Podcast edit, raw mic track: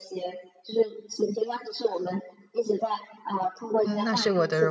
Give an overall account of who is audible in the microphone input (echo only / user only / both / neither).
both